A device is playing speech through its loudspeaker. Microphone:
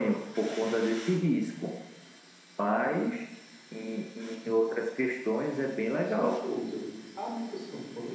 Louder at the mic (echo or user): echo